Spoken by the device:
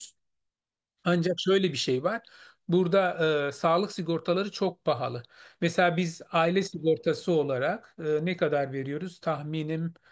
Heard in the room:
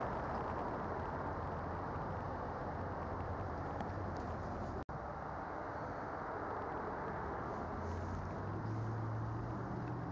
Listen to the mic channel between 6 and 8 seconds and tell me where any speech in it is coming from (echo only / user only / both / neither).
neither